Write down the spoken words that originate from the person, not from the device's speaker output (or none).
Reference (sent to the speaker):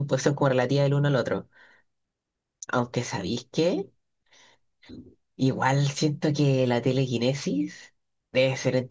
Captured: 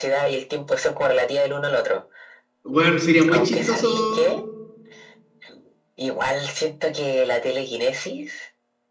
Bueno, sería muy chistoso.